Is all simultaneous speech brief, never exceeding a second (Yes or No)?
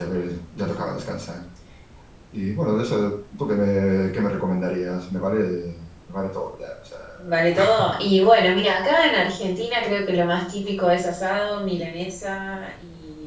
Yes